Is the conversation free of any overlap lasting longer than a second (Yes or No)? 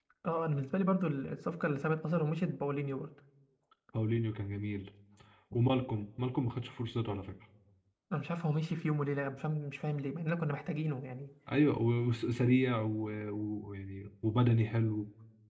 Yes